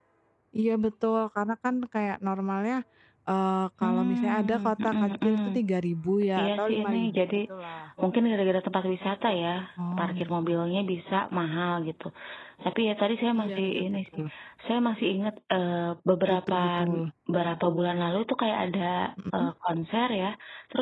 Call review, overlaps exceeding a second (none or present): present